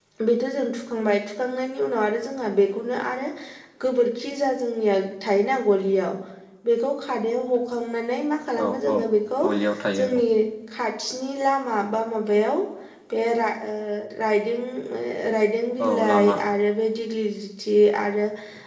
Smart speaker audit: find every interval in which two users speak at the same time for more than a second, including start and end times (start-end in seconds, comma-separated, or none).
none